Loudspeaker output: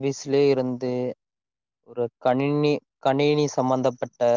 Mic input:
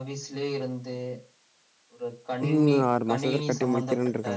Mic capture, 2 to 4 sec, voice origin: both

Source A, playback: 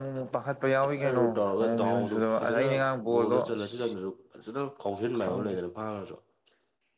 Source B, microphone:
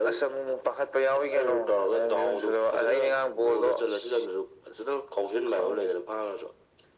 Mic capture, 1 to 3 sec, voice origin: echo only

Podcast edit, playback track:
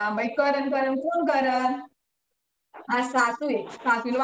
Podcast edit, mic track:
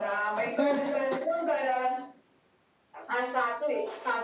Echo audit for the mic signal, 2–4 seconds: echo only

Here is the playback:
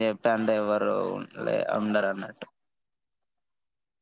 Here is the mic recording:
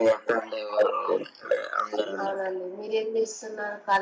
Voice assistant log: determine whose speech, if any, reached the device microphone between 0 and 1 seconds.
echo only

